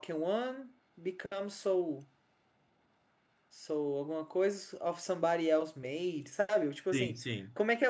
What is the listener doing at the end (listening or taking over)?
listening